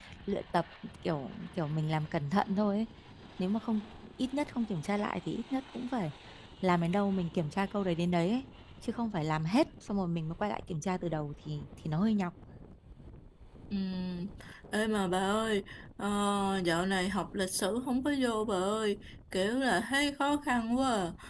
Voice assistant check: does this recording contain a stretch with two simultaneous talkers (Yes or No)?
No